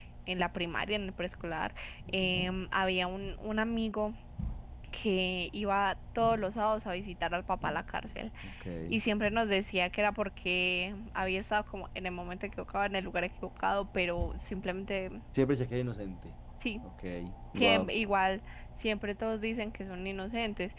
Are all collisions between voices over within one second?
Yes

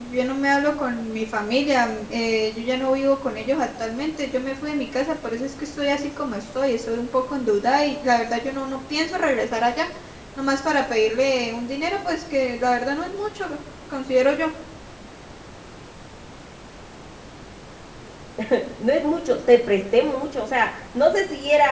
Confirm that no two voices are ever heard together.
Yes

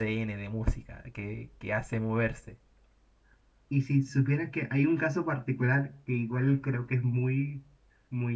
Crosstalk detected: No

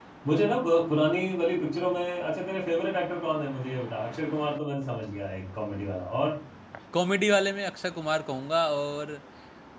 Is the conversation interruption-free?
Yes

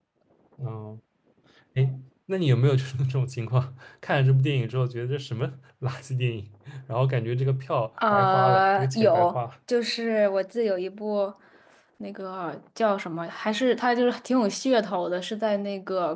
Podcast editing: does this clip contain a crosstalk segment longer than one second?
Yes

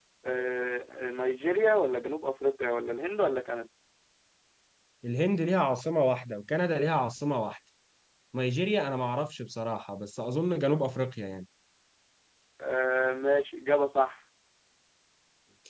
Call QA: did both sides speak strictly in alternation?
Yes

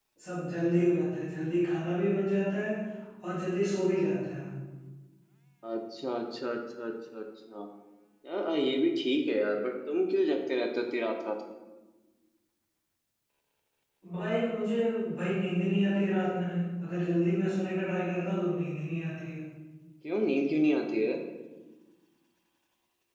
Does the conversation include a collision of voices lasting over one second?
No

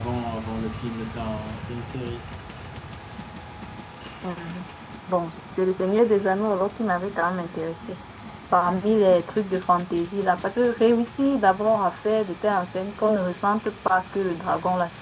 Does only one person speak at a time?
Yes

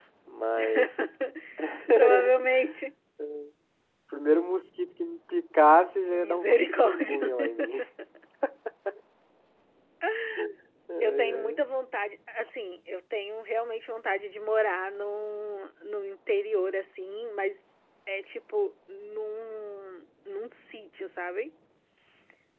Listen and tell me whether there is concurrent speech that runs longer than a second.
Yes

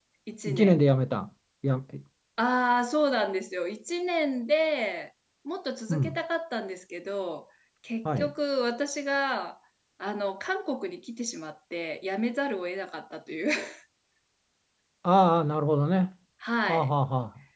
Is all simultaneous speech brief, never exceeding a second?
Yes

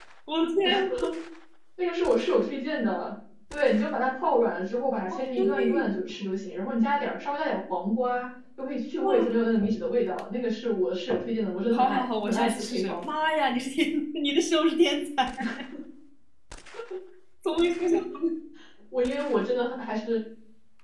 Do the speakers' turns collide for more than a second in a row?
Yes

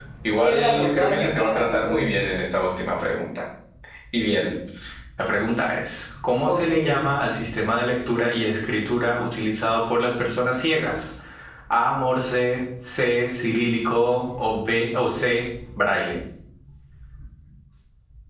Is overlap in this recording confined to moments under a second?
No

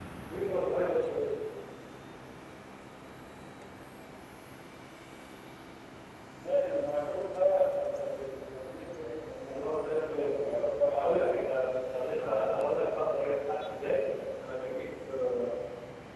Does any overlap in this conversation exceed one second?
Yes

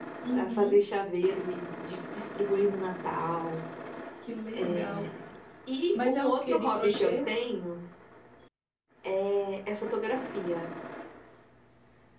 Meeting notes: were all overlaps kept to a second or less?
No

